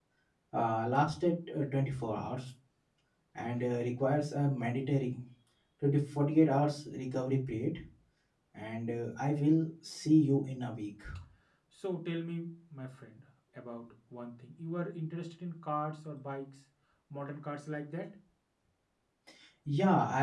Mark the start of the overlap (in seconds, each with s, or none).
none